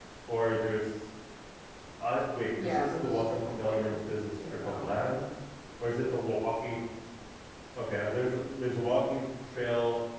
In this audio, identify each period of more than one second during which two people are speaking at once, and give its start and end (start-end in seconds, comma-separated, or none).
2.6-3.9